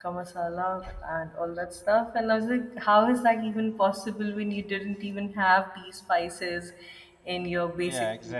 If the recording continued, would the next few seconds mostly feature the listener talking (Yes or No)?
Yes